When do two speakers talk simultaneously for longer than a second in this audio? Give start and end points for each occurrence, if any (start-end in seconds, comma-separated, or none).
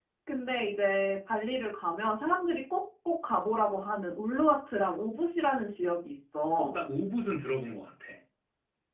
none